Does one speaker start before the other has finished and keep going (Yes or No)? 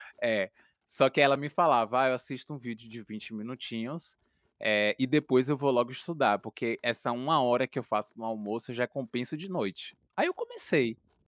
No